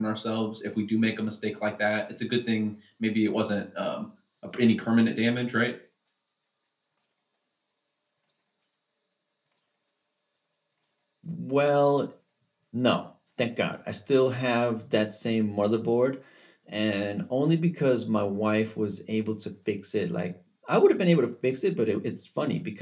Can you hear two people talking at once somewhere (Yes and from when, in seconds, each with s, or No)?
No